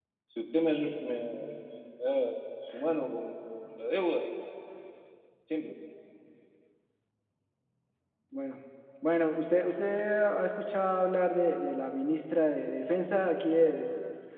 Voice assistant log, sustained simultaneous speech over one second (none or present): none